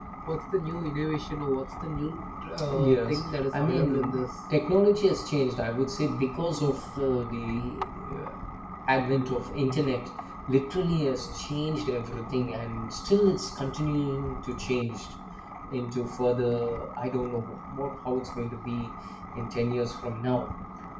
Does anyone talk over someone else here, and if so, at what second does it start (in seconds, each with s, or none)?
2.6 s